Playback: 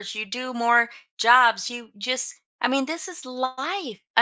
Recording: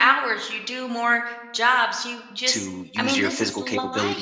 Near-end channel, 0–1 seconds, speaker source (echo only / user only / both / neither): echo only